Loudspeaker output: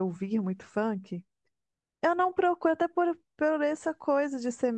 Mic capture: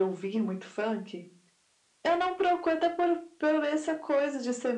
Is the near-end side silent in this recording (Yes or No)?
Yes